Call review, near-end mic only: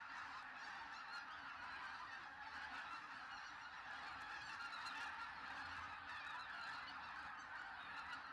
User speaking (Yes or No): No